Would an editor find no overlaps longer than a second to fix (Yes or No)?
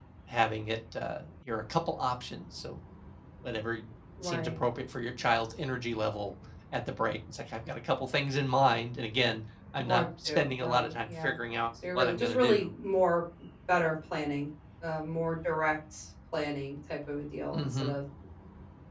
No